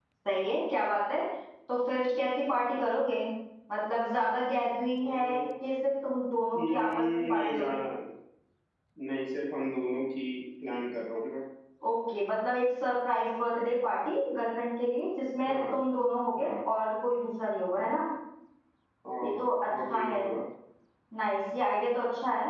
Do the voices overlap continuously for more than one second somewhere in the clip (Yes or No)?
Yes